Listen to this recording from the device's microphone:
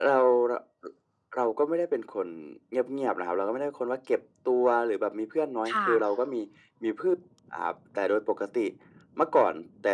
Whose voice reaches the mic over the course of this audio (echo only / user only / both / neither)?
both